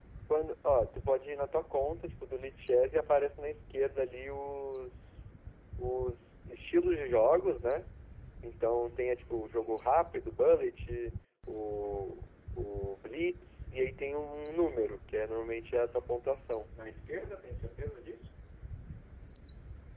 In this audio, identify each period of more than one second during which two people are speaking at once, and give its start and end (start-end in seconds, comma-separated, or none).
none